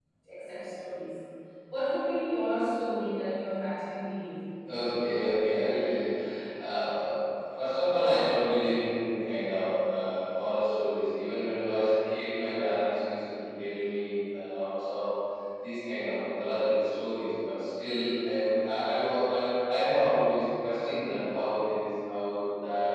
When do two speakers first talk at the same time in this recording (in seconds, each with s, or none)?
none